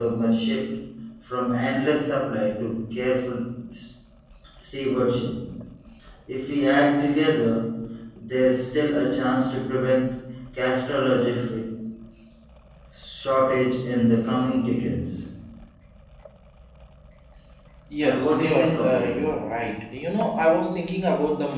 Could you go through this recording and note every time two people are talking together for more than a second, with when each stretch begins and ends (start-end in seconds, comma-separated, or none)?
18.0-19.3